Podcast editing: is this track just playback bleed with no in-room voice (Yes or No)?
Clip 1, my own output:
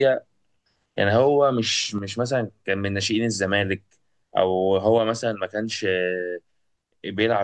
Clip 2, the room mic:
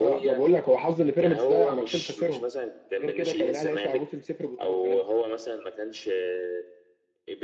No